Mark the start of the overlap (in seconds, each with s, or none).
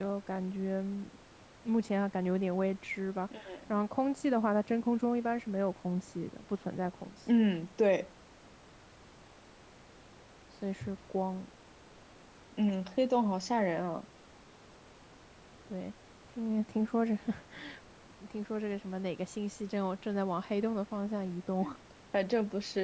none